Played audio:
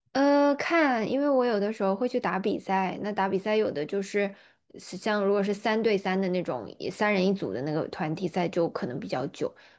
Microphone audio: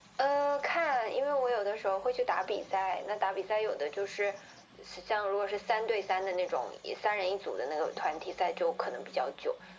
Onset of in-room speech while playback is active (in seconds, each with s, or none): none